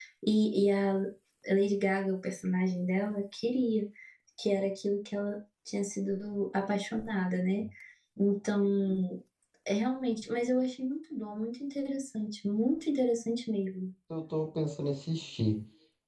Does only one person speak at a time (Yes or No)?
Yes